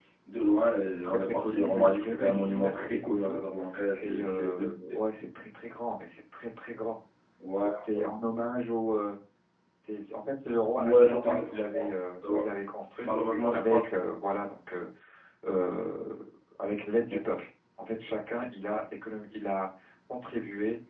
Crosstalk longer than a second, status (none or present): present